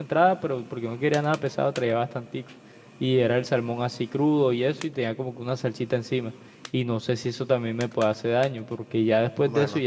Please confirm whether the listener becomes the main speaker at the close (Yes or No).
No